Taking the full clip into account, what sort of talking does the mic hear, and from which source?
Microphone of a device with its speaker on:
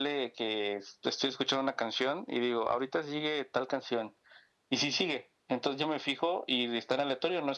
echo only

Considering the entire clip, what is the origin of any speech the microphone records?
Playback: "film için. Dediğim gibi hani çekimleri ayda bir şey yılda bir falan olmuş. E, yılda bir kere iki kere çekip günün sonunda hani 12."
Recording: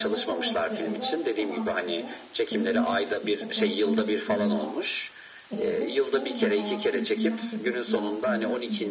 both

